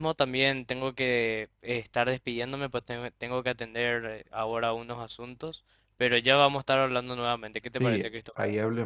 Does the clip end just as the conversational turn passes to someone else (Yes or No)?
Yes